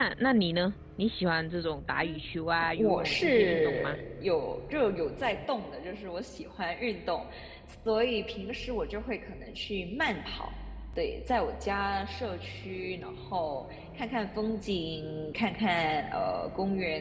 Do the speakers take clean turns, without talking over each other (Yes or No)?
No